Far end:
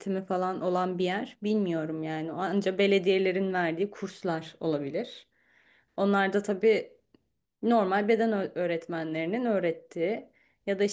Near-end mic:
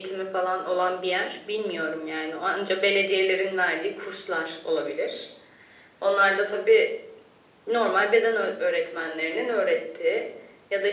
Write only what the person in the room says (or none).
none